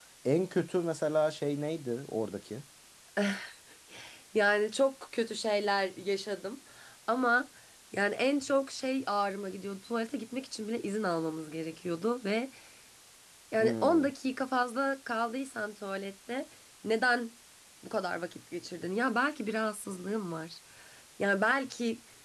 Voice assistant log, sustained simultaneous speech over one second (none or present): none